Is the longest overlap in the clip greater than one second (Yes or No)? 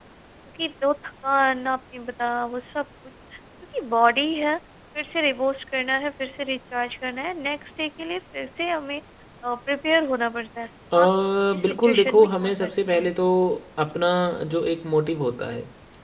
Yes